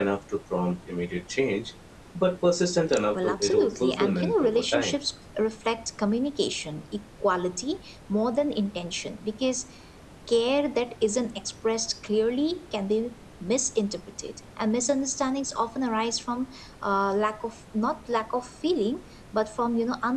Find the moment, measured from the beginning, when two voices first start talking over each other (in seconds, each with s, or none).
3.1 s